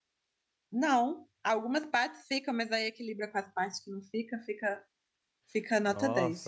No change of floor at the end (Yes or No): No